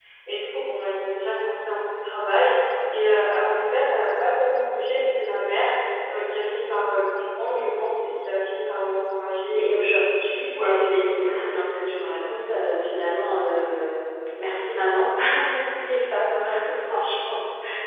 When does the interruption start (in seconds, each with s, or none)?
9.6 s